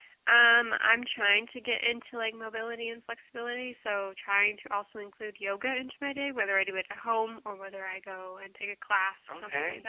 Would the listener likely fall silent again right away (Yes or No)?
No